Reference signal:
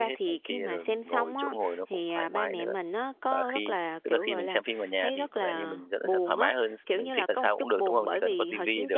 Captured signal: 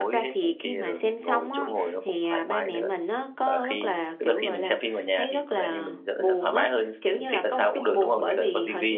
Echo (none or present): present